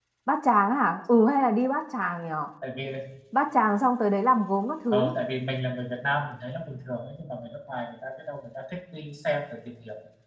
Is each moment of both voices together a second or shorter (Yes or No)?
Yes